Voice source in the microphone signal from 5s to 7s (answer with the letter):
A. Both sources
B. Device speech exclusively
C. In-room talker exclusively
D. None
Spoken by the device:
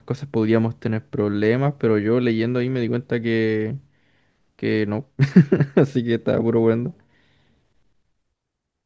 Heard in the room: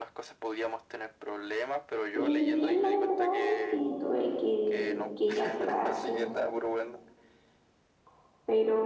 A